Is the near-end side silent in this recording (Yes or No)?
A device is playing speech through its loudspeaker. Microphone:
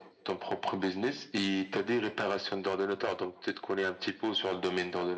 Yes